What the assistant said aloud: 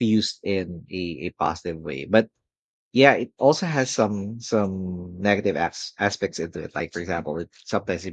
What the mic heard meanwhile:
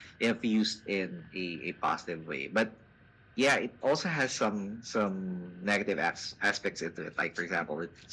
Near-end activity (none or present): none